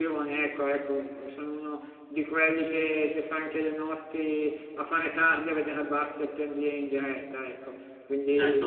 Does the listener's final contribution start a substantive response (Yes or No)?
Yes